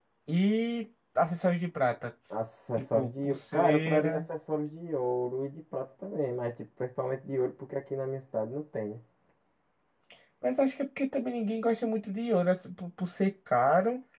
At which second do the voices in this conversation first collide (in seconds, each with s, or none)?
2.8 s